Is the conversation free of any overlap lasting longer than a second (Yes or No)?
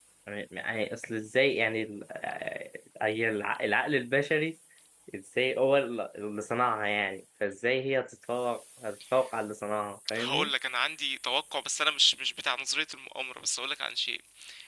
Yes